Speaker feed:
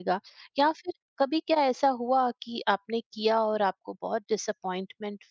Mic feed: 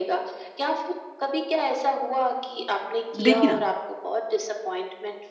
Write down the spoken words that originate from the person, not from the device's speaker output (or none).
देखिए ना,